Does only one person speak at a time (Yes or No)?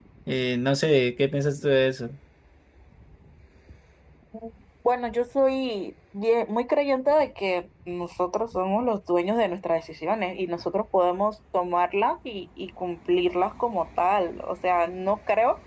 Yes